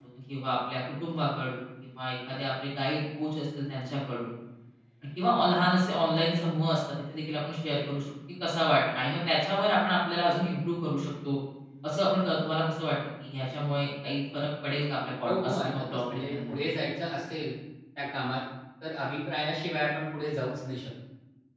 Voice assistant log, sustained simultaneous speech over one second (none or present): present